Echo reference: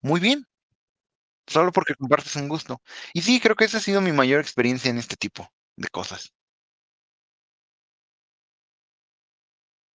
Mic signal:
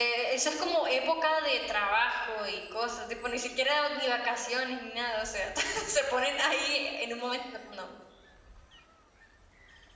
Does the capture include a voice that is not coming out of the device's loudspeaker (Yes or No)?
Yes